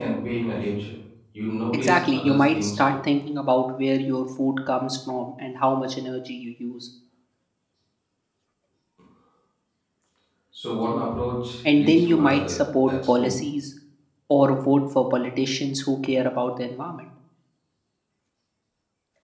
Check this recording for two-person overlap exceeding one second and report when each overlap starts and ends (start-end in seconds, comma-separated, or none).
1.7-2.9, 11.7-13.5